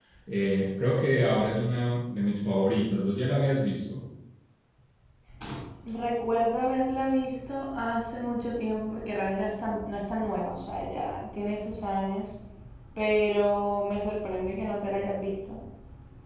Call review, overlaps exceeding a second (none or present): none